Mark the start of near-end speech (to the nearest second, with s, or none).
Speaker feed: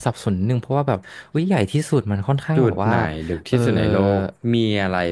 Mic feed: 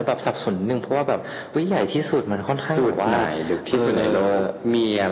none